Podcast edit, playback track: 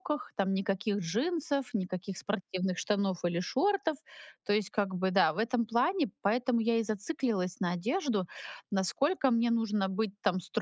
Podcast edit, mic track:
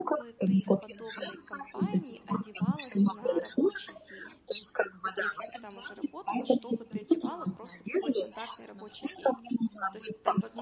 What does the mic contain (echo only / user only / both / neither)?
both